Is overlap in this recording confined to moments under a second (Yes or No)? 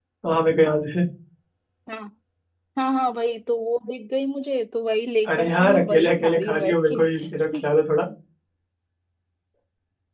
No